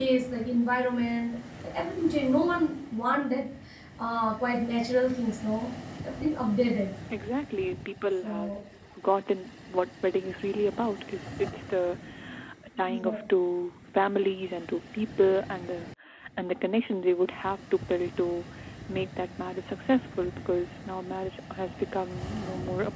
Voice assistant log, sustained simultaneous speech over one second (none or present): none